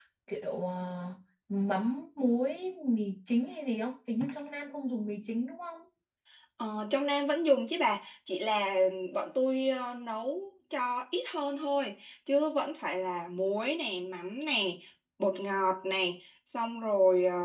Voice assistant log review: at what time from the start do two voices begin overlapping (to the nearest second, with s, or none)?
none